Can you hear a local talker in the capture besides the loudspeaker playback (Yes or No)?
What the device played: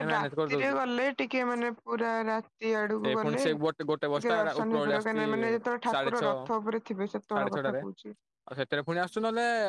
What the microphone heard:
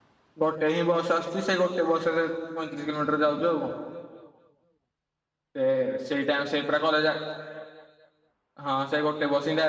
Yes